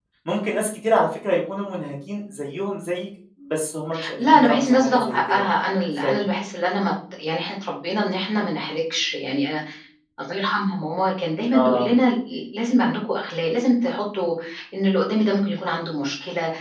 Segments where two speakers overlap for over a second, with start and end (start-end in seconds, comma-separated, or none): 4.2-5.4